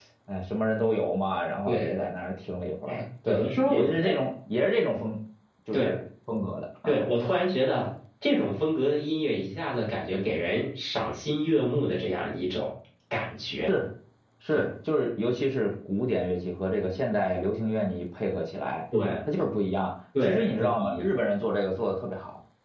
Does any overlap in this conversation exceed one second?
Yes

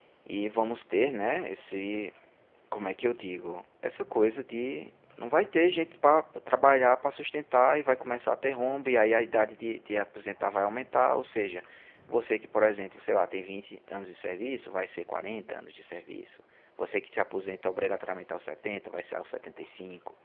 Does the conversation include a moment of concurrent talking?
No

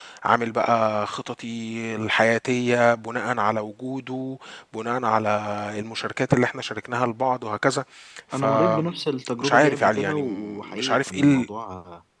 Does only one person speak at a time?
No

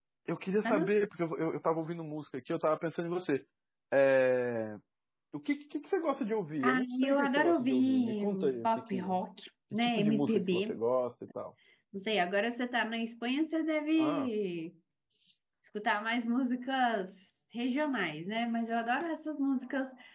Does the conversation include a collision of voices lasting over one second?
Yes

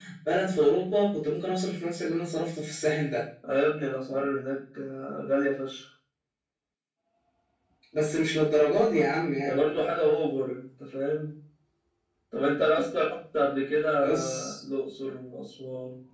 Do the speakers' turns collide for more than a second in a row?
No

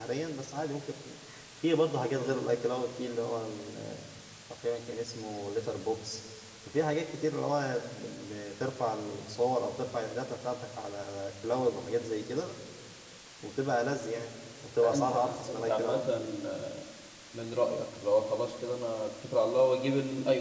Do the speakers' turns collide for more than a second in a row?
Yes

